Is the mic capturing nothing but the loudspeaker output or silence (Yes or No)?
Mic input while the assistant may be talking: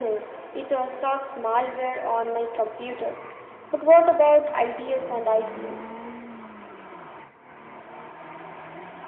Yes